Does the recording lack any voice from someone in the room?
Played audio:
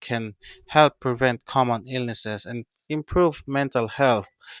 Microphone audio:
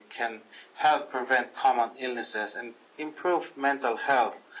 Yes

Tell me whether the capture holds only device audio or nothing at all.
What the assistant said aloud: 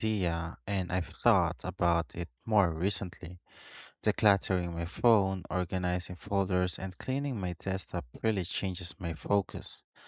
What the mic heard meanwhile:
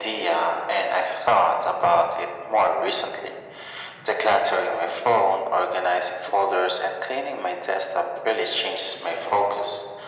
Yes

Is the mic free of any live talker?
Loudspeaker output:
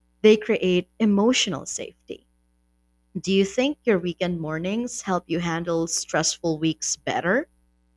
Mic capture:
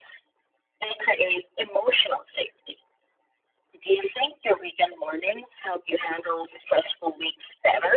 Yes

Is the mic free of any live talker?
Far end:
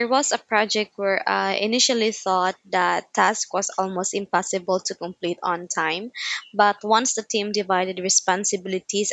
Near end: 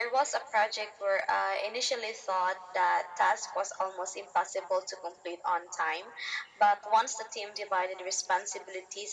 Yes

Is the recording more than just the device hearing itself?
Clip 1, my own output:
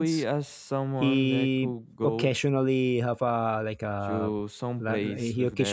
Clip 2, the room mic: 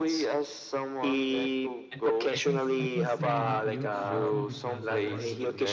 Yes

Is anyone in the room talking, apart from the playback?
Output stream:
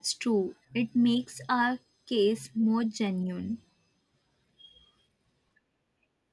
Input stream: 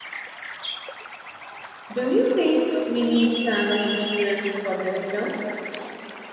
Yes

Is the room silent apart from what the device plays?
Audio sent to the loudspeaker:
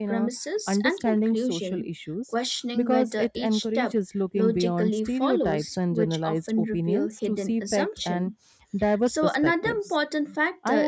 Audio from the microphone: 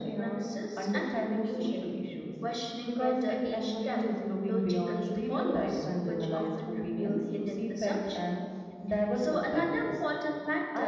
Yes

